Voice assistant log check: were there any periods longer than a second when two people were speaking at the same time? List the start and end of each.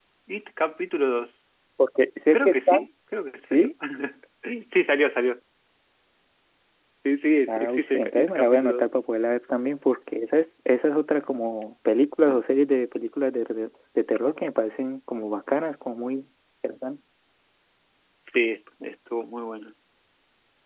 7.5-8.9

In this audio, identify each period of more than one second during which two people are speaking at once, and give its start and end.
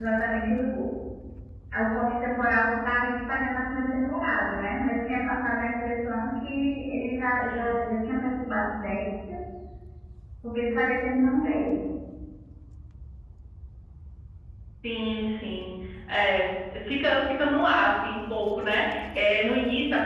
none

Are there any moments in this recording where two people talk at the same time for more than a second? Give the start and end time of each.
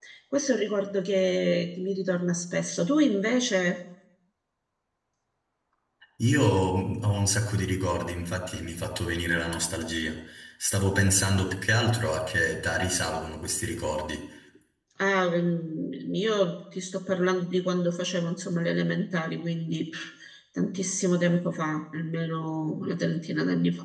none

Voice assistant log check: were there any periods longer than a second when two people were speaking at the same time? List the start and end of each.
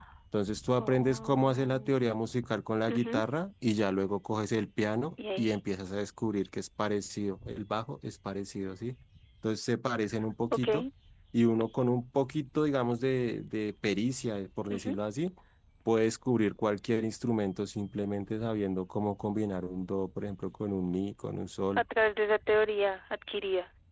0.8-2.0

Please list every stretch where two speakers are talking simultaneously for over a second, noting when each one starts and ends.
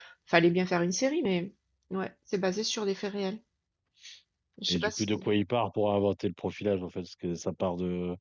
none

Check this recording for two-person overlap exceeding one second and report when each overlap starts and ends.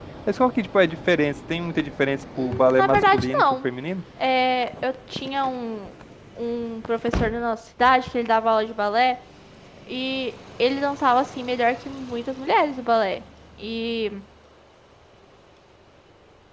2.4-3.6

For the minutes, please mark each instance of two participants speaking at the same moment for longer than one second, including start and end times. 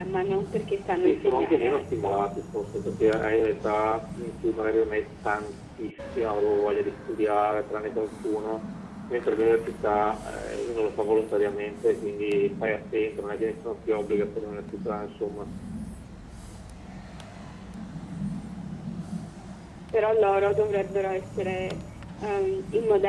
1.0-2.2

